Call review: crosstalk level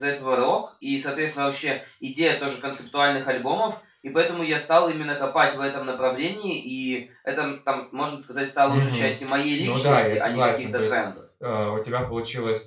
present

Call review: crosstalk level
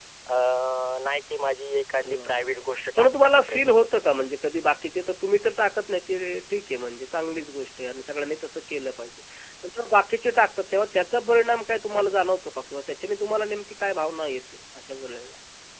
present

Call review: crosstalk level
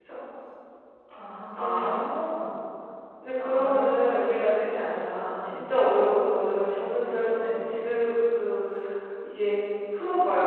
present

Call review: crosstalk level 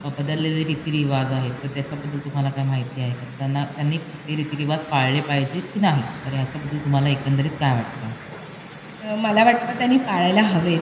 none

